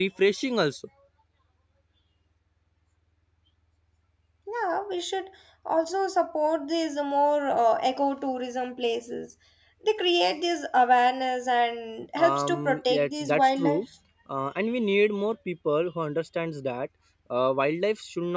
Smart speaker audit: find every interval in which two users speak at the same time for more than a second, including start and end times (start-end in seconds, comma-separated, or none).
12.2-13.8